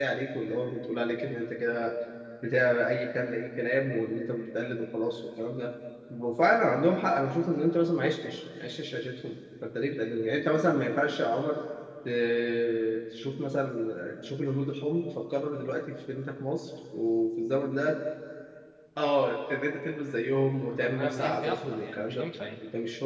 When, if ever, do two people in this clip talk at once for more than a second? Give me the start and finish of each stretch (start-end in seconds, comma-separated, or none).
20.7-22.4